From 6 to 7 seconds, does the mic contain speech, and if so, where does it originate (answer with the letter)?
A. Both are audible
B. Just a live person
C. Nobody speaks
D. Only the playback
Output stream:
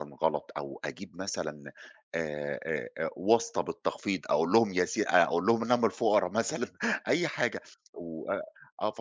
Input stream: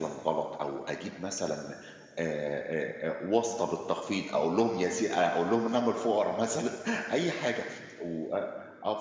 D